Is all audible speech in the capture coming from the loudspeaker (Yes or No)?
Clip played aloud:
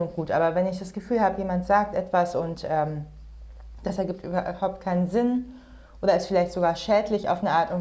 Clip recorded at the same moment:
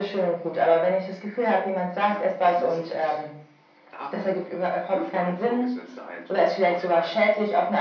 No